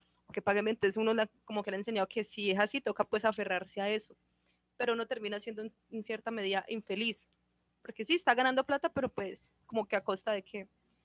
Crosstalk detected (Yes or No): No